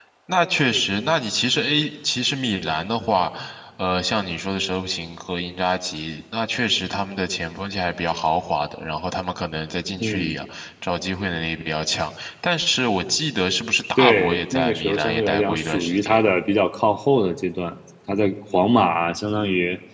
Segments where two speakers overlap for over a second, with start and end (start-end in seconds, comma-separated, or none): 14.0-16.2